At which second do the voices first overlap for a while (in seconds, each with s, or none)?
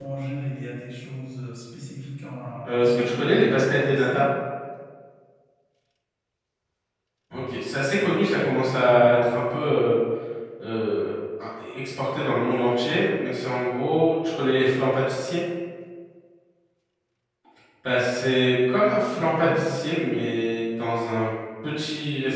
2.6 s